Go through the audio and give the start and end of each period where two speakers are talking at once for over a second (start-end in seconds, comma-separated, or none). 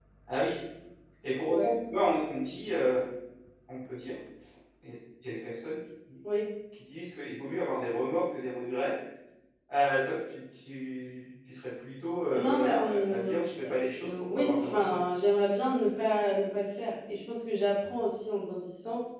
12.4-15.0